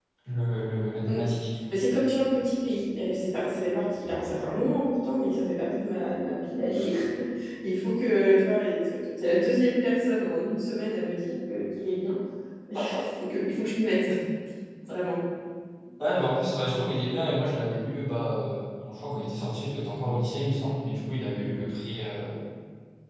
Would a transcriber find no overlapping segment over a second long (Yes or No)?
Yes